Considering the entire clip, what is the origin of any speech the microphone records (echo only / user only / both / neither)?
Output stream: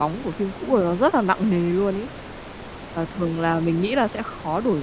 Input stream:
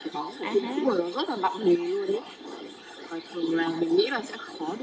both